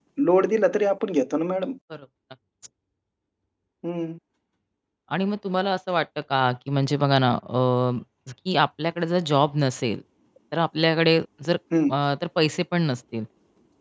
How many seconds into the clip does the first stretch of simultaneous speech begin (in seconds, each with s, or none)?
none